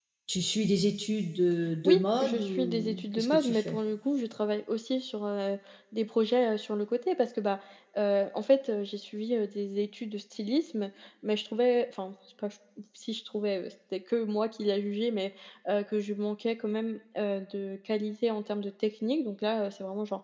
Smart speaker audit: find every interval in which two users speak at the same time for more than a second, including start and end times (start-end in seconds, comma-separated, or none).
1.8-3.8